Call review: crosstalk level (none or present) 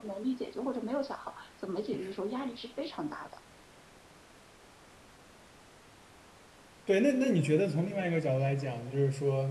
none